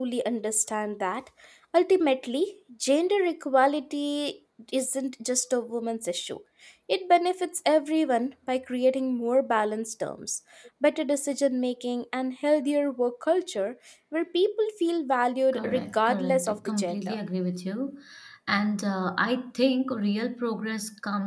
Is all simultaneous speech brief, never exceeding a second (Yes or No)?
No